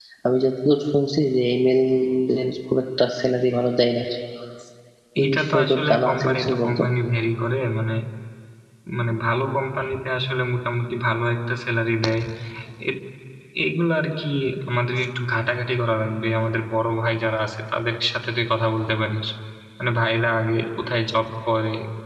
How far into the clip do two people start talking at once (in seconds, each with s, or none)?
5.2 s